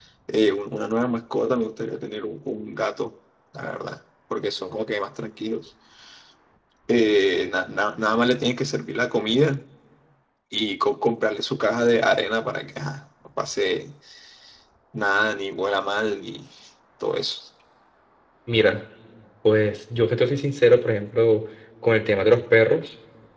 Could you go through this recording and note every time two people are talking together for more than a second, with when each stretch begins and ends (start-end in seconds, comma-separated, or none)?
none